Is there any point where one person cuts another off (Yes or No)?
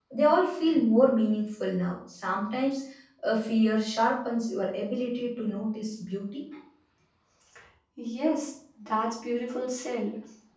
No